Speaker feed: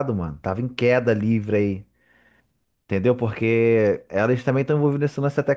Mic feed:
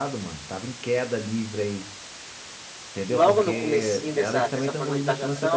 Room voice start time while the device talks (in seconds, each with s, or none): 3.1 s